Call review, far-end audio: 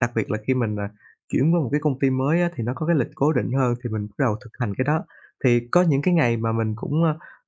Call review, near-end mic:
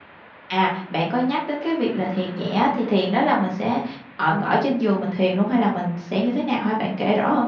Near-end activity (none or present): present